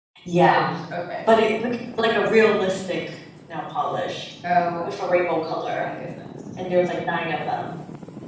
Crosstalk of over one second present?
No

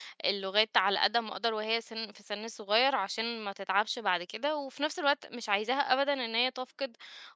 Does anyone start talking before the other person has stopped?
No

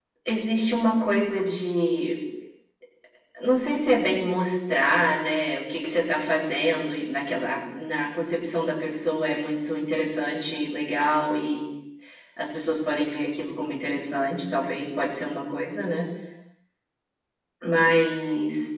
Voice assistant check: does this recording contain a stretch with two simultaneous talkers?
No

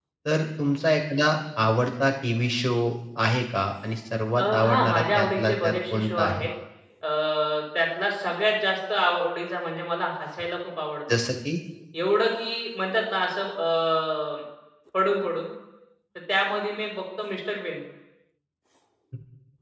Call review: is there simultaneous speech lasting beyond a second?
Yes, from 4.4 s

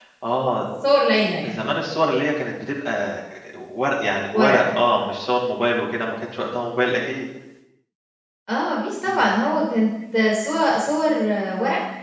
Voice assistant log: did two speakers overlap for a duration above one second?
No

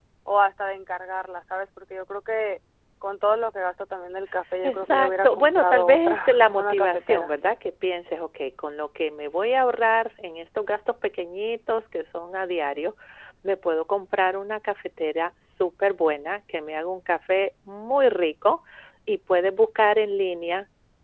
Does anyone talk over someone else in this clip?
Yes, from 4.6 s

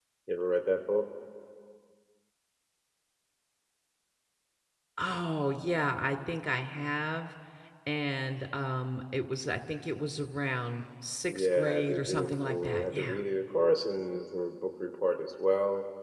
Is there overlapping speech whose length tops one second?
Yes, from 11.3 s

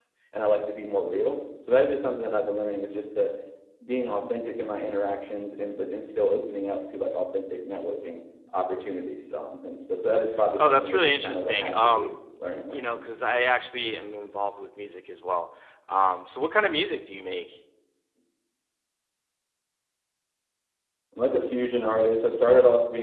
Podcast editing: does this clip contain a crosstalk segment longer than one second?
Yes, from 10.6 s

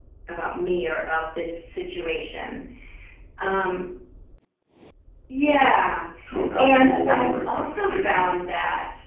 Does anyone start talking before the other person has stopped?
Yes, from 6.6 s

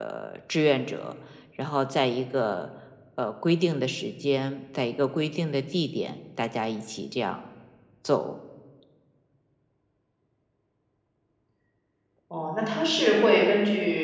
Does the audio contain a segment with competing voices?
No

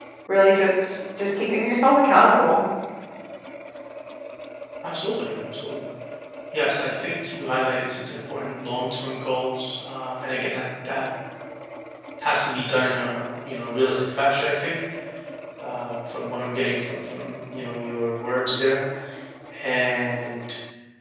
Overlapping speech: No

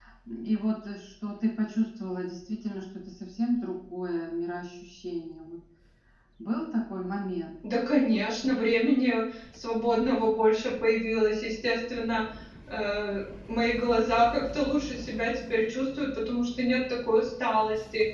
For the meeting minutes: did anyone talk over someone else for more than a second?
No

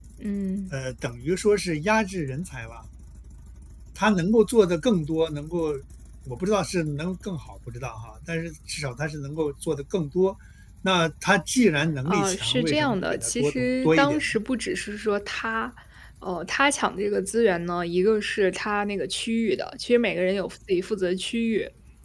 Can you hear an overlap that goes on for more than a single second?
Yes, from 12.1 s

